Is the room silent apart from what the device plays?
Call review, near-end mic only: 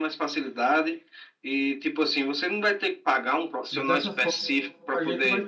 No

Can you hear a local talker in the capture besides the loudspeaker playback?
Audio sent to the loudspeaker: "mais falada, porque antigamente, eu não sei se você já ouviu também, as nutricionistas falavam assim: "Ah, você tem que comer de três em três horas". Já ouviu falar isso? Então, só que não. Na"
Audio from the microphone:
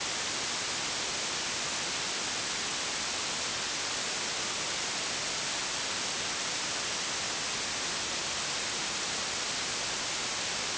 No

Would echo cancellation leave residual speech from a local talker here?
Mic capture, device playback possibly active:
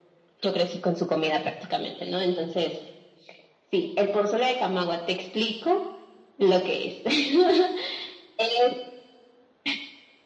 No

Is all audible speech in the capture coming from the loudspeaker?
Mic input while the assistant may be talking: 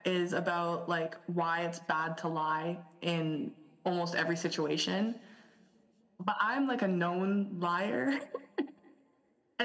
Yes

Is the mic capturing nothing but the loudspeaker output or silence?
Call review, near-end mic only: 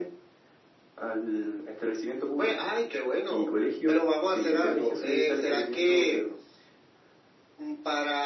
Yes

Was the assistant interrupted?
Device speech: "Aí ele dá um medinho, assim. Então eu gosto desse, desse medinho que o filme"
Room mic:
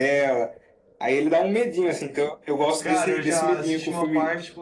Yes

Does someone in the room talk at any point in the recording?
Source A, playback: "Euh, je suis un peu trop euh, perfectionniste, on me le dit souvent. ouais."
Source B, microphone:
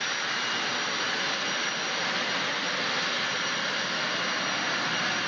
No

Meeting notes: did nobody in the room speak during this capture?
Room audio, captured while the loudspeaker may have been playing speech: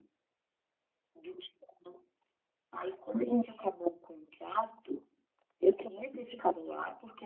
Yes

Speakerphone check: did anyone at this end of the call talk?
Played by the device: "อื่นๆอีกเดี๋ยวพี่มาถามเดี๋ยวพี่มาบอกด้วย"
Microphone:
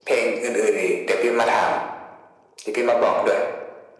No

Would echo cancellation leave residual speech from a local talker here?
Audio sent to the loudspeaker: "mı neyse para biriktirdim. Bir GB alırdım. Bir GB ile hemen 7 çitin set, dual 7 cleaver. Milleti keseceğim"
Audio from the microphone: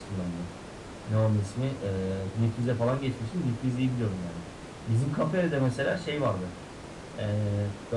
Yes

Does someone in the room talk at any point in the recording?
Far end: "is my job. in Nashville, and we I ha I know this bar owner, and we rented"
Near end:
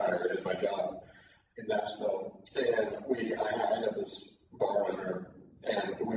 No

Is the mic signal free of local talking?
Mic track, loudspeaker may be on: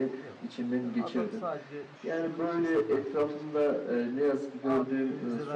No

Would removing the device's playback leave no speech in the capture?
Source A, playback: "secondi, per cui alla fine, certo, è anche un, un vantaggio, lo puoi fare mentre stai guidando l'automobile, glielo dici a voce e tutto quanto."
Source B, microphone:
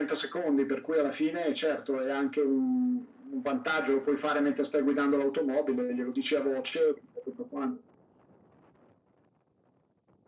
Yes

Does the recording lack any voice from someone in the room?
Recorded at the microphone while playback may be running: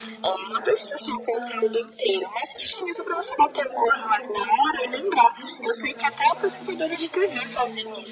No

